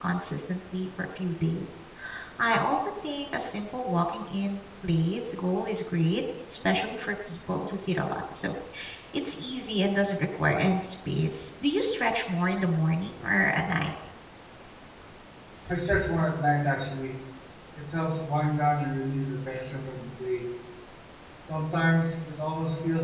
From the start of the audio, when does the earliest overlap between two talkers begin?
none

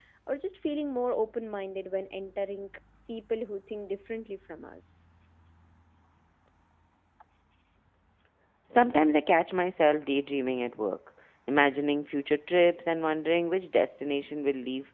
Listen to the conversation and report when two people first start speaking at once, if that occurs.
none

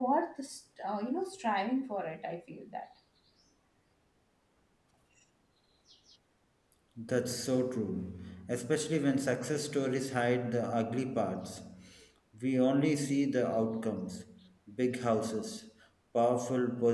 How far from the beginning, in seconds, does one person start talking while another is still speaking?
none

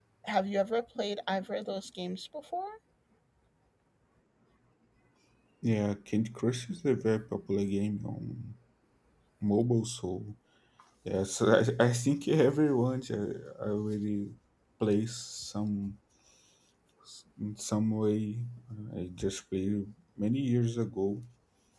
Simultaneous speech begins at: none

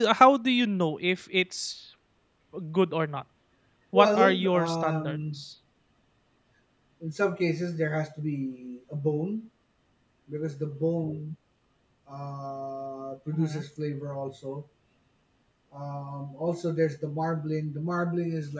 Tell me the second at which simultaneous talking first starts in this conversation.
3.9 s

